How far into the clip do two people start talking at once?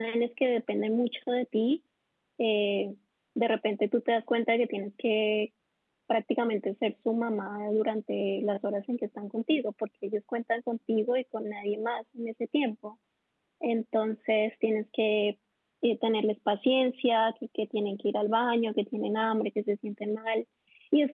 none

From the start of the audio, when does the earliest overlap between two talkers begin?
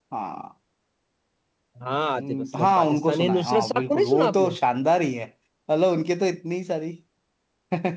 2.2 s

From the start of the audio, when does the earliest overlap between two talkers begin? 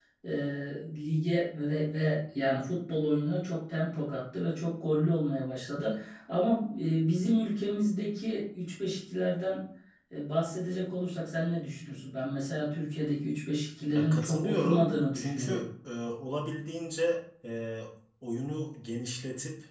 13.9 s

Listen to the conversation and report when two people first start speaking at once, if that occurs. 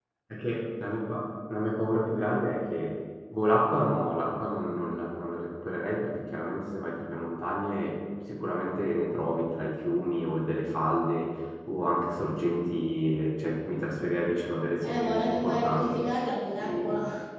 14.8 s

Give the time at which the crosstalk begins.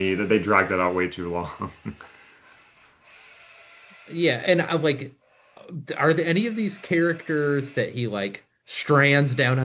none

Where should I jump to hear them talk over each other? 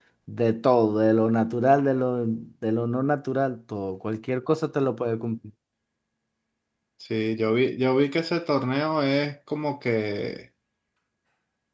none

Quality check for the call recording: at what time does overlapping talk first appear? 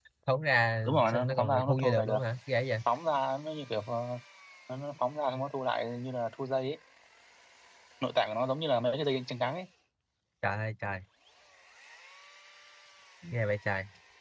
0.9 s

